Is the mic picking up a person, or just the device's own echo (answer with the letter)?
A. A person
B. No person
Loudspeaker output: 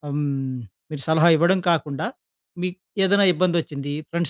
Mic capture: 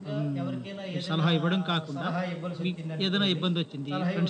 A